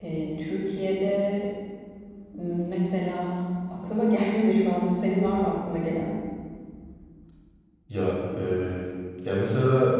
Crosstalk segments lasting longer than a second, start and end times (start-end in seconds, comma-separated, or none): none